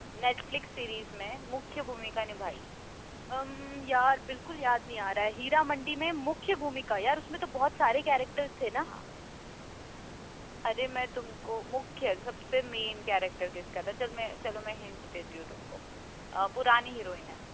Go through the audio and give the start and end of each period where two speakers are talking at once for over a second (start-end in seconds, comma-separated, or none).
none